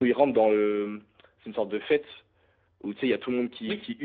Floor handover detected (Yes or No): No